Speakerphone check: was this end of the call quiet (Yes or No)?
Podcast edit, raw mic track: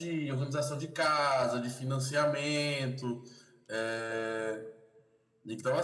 Yes